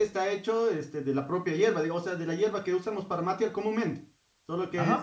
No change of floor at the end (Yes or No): No